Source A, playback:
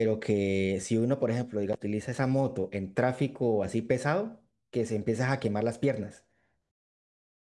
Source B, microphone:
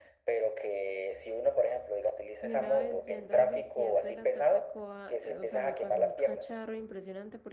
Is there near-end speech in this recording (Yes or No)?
Yes